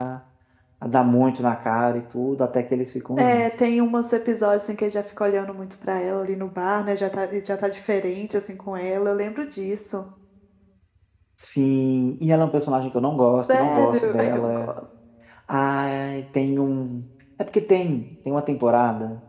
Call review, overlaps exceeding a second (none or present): present